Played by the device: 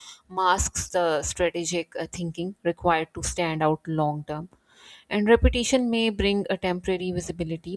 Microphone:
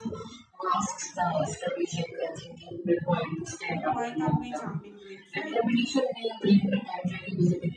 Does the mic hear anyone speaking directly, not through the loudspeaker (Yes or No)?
Yes